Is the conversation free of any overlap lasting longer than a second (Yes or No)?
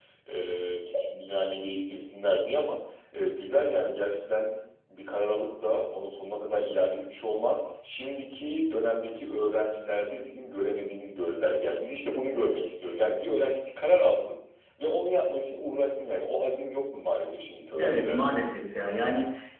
Yes